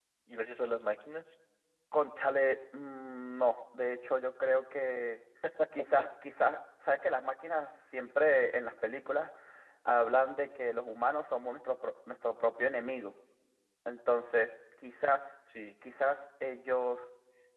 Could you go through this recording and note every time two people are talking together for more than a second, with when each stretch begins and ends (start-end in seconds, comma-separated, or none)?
none